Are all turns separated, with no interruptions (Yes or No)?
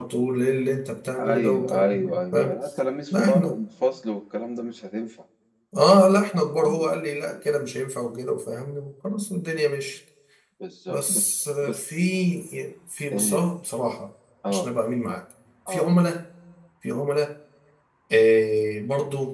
No